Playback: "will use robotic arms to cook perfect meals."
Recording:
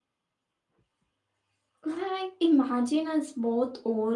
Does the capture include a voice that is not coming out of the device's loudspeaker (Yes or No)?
Yes